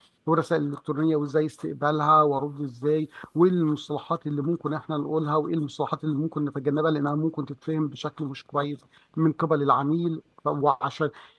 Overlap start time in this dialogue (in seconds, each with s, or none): none